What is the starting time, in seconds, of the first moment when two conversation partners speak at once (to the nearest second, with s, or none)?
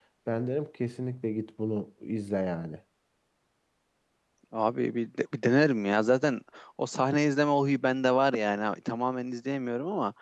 none